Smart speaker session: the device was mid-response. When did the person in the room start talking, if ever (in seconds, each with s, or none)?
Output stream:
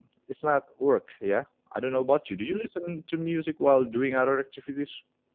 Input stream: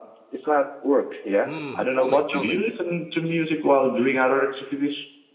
1.4 s